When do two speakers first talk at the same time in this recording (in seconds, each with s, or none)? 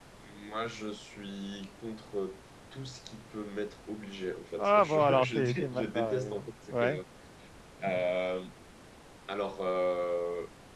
4.6 s